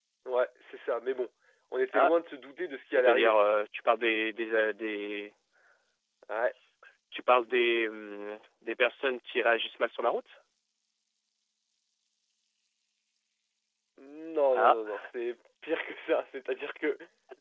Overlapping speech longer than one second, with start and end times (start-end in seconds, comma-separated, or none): none